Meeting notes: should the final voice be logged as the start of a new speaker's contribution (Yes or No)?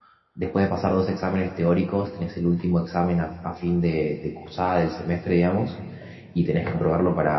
No